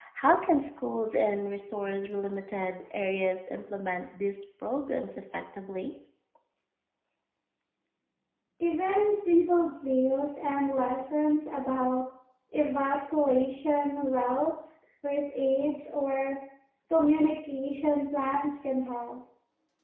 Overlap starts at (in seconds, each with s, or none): none